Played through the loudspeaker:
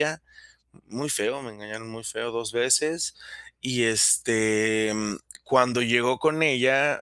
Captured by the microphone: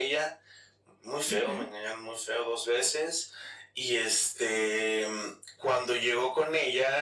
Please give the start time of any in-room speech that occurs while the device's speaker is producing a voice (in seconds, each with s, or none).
1.3 s